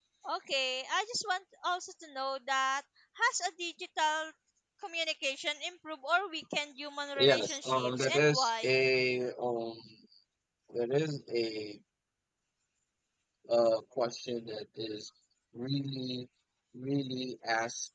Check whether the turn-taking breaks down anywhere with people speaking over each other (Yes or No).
Yes